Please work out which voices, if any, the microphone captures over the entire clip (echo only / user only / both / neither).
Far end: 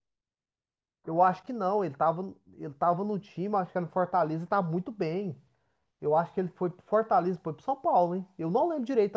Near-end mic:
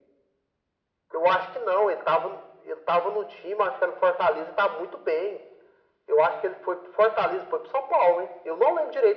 echo only